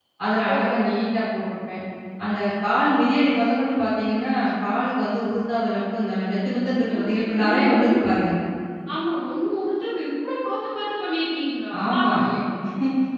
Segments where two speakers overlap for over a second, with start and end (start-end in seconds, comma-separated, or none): 6.9-8.2